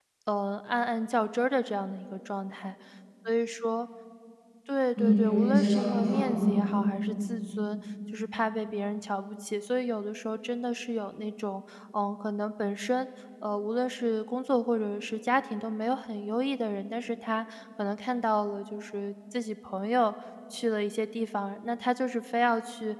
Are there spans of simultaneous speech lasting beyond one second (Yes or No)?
Yes